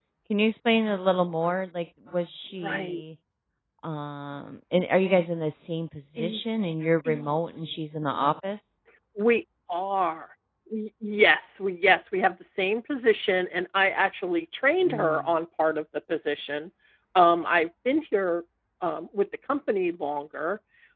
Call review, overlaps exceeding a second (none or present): none